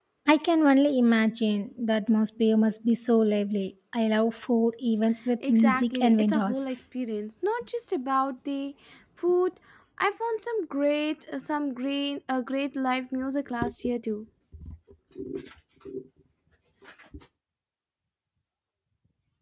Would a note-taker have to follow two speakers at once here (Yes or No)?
Yes